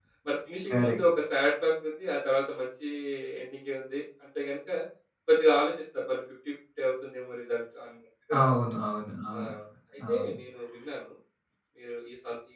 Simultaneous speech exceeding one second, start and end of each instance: none

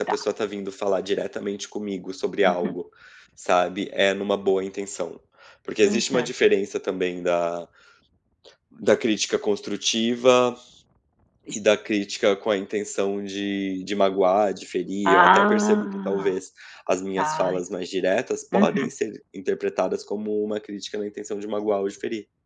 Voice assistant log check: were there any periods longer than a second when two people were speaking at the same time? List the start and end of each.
15.1-16.3

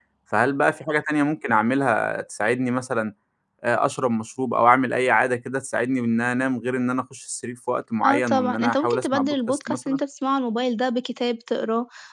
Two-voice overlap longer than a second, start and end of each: 8.0-10.0

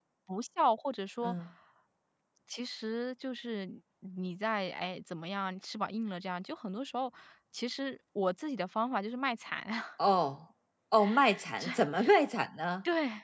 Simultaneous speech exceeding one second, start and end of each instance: none

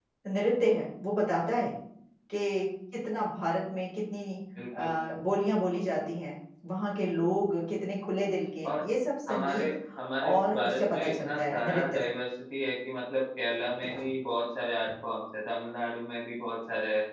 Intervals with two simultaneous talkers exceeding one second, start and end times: 10.2-12.0

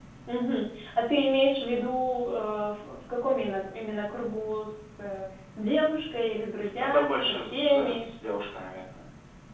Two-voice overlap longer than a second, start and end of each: 6.8-8.1

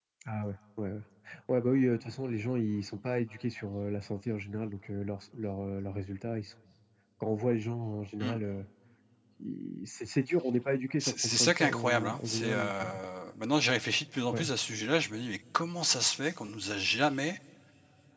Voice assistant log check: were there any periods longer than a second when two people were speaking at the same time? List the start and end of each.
11.0-12.9

